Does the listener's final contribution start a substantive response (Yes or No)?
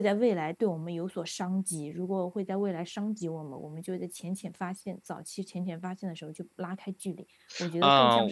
Yes